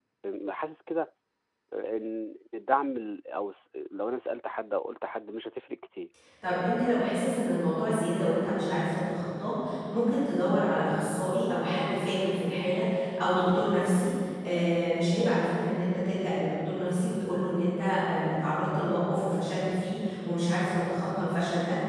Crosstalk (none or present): none